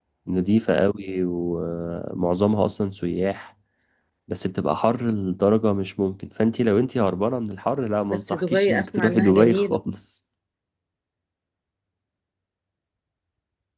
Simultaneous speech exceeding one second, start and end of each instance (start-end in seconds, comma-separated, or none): 8.1-9.8